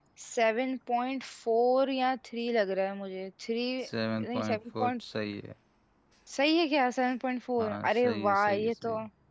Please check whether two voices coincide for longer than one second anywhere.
Yes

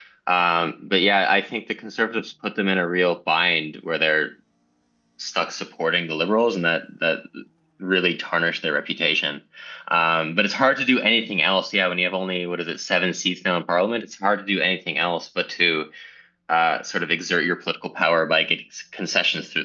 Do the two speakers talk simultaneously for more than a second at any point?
No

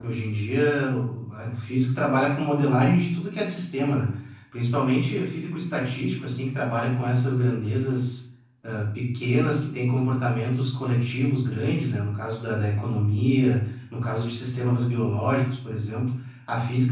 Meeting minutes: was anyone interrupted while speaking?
No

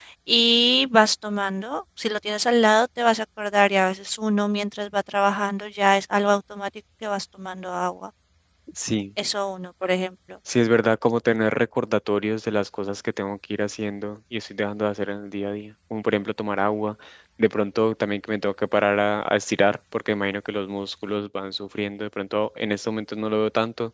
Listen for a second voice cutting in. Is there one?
No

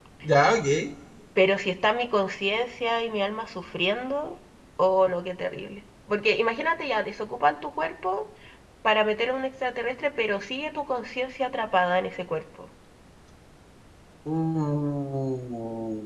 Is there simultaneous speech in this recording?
No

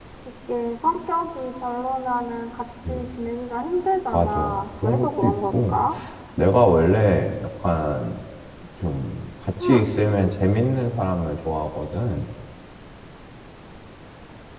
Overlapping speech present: Yes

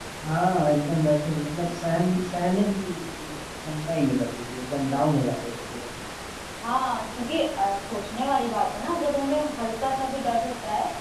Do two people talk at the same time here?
No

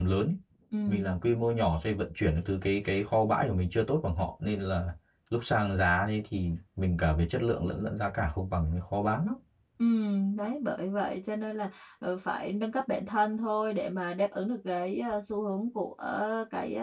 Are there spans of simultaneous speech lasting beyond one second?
No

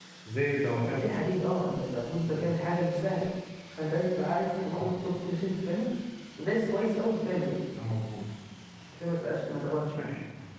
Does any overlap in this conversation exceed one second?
No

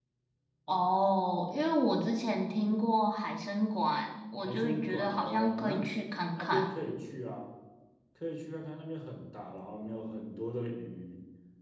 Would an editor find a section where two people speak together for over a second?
Yes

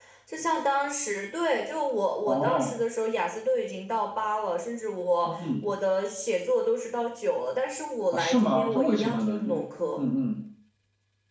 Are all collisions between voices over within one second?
No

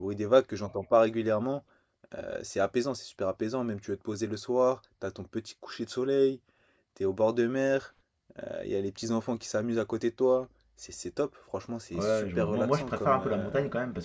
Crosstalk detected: Yes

